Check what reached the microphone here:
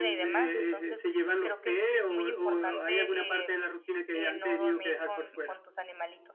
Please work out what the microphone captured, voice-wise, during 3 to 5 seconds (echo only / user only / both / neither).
both